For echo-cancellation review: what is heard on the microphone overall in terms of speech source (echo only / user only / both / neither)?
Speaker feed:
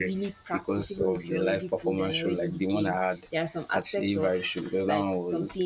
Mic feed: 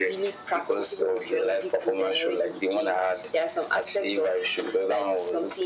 echo only